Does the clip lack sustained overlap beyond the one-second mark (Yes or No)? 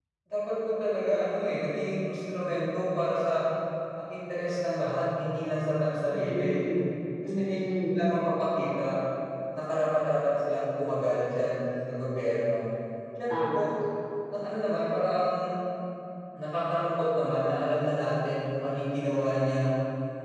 Yes